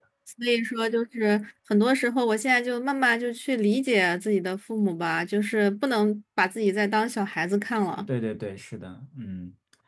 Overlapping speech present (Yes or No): No